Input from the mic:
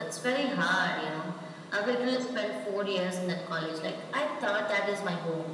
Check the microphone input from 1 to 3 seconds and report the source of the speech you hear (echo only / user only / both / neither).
echo only